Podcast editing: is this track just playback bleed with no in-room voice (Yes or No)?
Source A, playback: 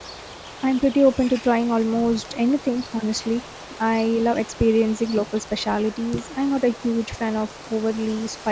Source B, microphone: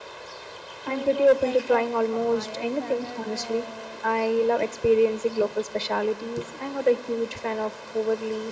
No